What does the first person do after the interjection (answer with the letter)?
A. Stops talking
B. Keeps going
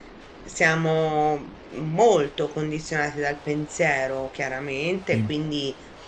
B